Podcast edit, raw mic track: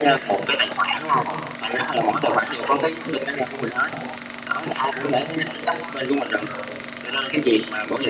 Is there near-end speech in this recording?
No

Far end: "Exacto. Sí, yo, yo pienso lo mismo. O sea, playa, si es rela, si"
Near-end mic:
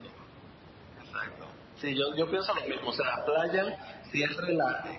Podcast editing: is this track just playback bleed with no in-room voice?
Yes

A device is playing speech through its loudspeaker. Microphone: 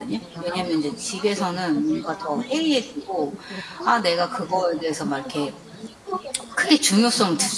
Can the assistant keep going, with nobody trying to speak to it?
No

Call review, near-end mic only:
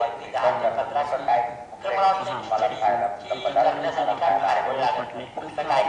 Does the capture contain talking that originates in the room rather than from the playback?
Yes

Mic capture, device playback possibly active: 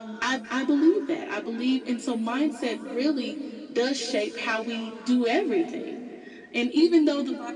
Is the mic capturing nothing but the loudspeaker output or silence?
Yes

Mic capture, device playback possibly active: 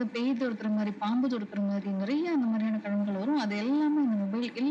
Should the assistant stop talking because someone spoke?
No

